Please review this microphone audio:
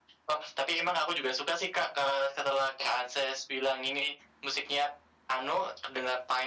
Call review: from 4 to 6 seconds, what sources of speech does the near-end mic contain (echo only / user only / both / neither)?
echo only